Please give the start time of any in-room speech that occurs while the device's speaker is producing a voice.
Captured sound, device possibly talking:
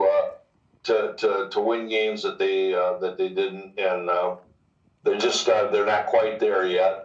none

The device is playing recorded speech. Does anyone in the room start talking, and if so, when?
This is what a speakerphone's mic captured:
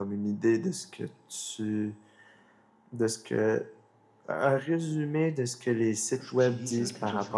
6.2 s

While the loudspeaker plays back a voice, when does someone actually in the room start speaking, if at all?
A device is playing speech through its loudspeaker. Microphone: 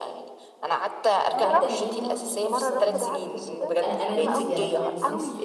1.3 s

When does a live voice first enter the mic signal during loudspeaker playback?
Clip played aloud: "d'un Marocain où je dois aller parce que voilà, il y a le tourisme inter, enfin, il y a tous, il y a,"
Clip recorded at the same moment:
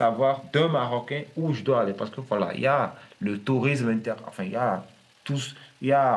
none

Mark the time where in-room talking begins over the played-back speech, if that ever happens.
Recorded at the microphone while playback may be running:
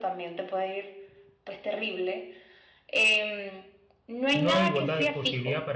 4.3 s

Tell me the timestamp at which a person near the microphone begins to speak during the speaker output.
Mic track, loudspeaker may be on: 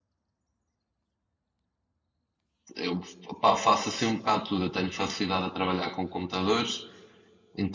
2.8 s

